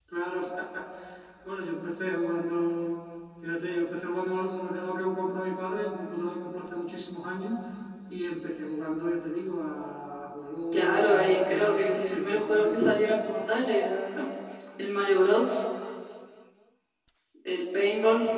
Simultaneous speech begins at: 10.7 s

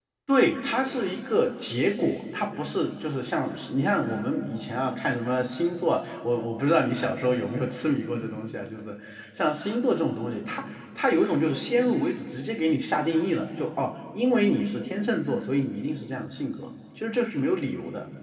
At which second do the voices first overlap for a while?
none

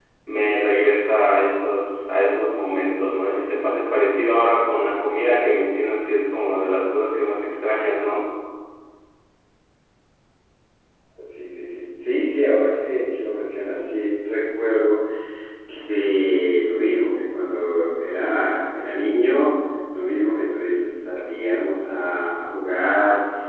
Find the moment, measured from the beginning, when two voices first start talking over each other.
none

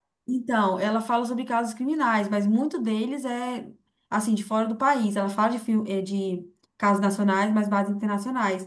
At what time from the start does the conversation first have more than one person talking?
none

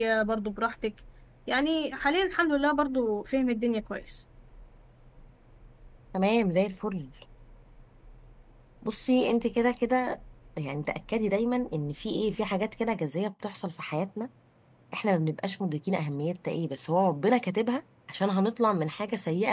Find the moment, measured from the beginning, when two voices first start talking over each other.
none

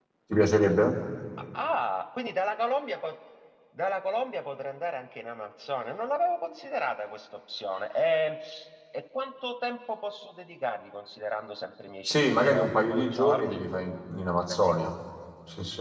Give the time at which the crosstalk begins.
12.0 s

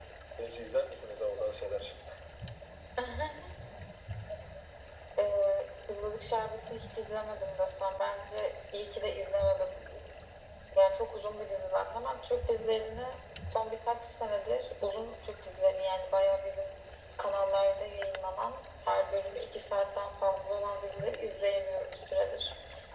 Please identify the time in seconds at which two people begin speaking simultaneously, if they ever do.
none

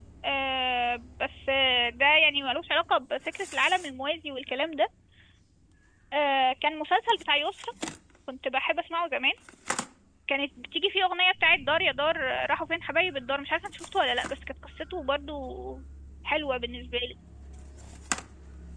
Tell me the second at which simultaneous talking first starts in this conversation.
none

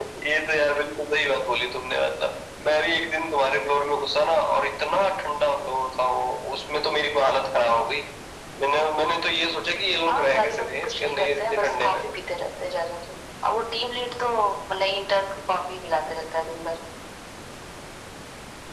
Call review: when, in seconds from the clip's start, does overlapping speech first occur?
10.1 s

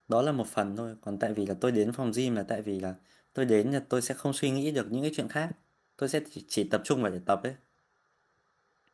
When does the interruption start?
none

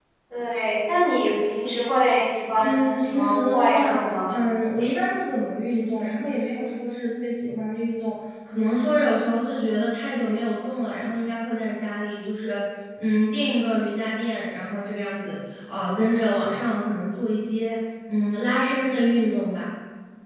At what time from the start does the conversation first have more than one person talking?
2.5 s

